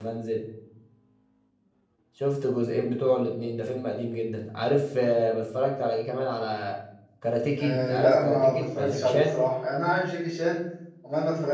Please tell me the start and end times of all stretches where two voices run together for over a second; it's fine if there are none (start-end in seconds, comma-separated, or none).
7.6-9.4